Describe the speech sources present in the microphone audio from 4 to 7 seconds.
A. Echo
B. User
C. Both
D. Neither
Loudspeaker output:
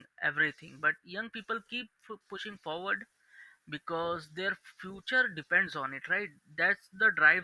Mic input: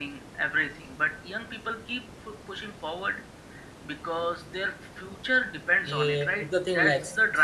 C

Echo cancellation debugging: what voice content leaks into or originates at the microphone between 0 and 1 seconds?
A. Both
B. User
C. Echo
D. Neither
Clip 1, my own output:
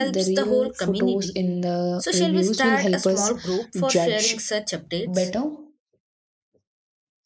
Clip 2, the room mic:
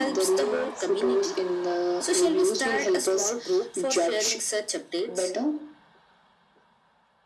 C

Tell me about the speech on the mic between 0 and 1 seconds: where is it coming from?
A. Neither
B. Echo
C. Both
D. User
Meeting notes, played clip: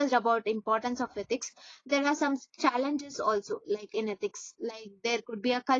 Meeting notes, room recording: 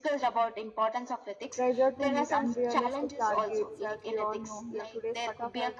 B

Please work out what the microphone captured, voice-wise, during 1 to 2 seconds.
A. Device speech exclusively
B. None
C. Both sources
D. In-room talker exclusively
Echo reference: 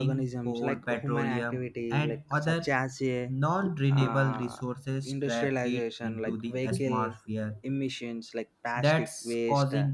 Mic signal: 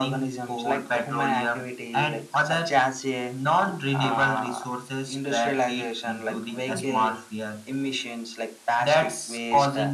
A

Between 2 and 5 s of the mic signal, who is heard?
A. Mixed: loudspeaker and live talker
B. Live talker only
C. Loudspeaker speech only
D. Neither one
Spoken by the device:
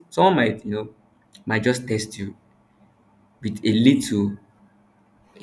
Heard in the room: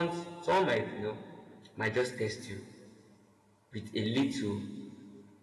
C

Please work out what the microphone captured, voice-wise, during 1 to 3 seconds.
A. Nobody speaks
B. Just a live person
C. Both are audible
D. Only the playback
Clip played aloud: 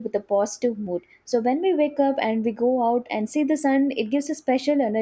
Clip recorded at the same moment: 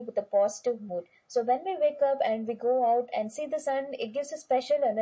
D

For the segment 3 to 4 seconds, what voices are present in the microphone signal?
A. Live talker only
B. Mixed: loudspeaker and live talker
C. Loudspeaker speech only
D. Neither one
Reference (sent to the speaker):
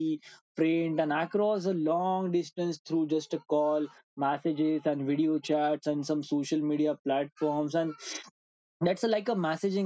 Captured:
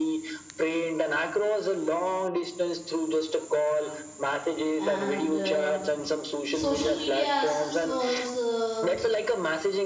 C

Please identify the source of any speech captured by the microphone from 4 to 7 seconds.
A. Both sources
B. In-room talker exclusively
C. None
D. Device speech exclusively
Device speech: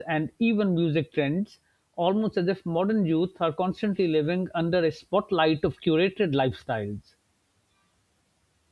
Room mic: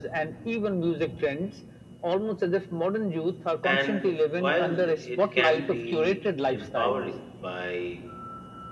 A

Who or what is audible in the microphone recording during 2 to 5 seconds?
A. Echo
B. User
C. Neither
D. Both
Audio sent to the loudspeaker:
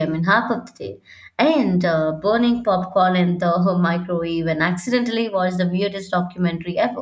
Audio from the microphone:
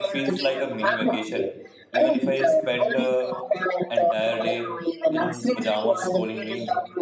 D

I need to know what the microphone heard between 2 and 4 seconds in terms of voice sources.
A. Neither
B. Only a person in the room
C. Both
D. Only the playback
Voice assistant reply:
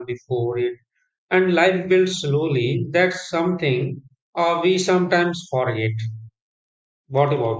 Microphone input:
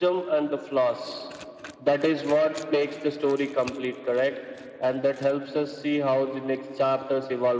B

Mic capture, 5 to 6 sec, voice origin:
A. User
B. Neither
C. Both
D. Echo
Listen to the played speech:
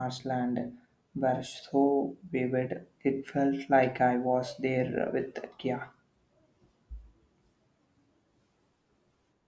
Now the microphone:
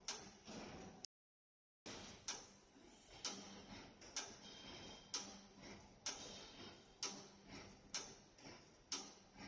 B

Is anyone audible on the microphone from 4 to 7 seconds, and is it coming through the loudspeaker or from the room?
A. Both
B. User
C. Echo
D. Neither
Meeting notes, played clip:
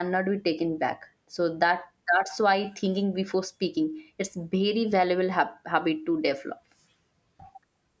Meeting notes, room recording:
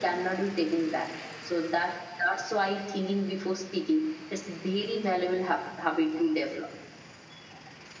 C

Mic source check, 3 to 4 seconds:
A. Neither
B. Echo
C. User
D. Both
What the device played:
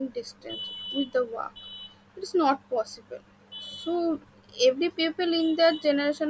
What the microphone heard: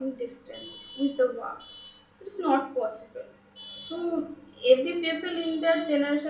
B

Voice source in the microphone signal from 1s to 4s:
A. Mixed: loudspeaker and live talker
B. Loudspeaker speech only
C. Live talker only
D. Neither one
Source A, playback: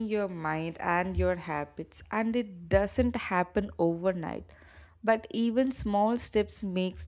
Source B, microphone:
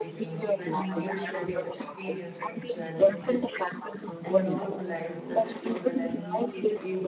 A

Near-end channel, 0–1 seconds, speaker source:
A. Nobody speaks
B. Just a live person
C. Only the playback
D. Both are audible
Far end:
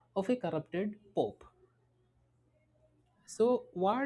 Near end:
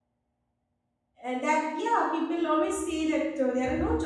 A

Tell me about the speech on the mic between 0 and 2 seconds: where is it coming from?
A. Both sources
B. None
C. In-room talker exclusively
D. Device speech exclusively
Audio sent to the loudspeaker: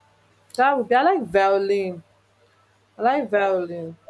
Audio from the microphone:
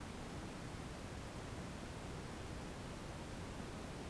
B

